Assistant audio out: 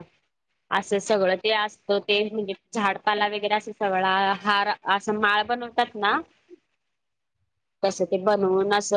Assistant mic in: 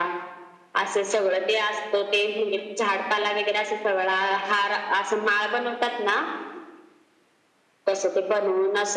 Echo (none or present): present